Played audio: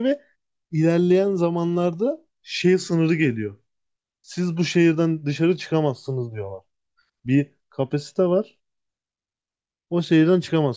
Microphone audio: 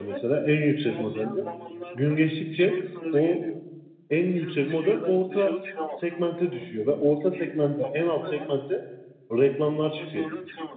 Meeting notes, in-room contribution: present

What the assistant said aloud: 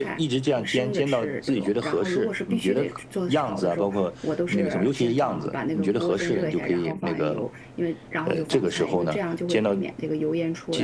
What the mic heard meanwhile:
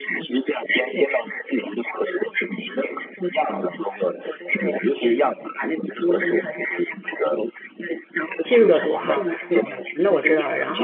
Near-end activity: present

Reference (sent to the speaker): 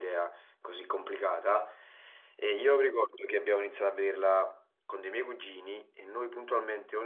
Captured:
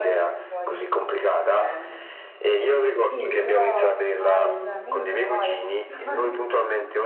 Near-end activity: present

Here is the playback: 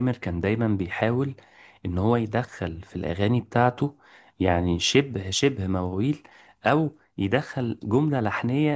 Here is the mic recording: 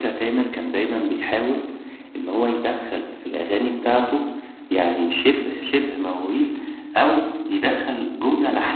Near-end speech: none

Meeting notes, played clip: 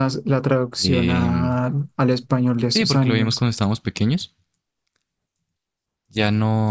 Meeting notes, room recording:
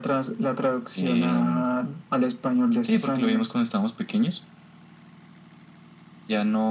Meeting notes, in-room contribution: none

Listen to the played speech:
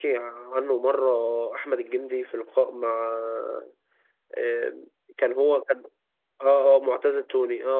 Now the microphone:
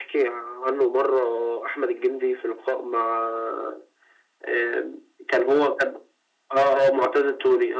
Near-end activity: none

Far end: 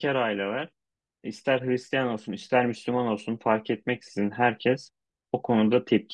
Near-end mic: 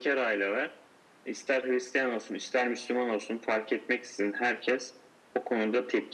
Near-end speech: none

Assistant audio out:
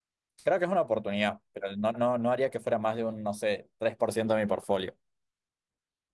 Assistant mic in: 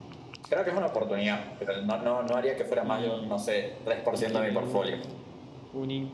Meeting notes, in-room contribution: present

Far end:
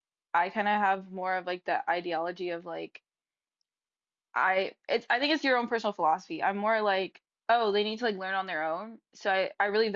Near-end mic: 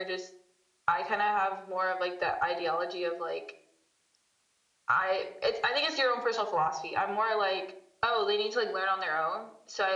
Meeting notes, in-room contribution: none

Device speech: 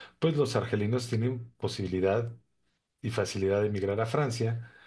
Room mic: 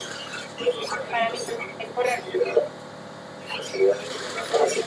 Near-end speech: present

